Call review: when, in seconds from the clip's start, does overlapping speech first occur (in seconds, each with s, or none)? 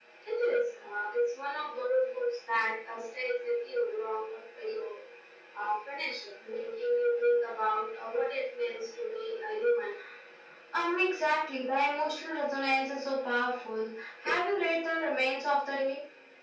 none